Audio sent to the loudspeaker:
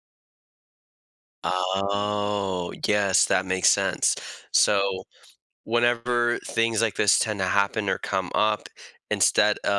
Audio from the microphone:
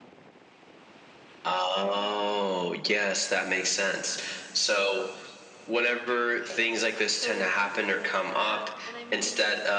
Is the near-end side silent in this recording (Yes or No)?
No